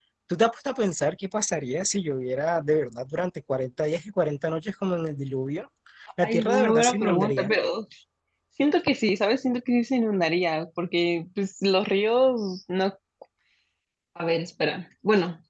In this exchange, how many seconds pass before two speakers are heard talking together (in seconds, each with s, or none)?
6.2 s